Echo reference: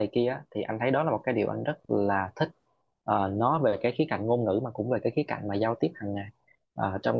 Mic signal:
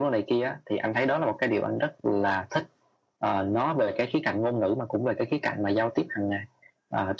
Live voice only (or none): none